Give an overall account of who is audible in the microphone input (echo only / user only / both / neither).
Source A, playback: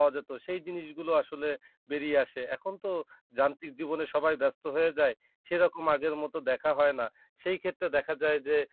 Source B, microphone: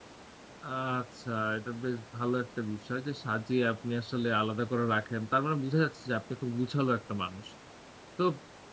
user only